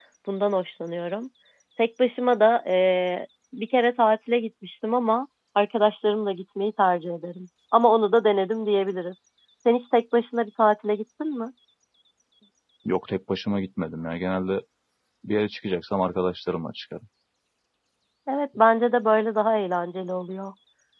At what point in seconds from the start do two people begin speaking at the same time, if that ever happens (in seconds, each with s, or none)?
none